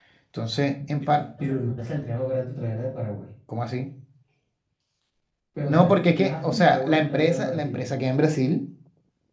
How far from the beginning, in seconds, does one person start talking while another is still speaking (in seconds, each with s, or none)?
5.7 s